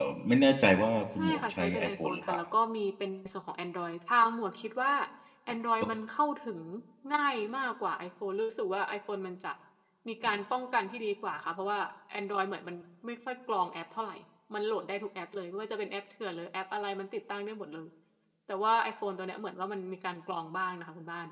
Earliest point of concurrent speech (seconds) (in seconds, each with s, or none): 1.1 s